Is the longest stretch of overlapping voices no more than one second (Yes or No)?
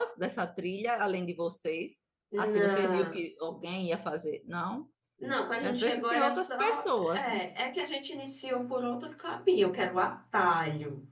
No